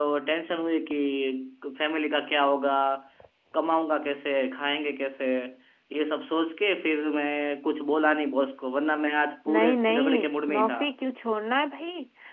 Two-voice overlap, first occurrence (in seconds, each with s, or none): 9.5 s